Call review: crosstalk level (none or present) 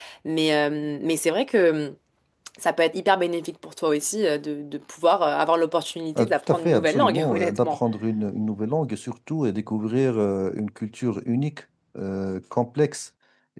present